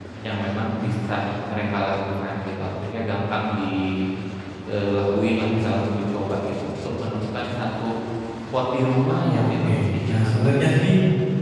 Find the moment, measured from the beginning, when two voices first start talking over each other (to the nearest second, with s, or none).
9 s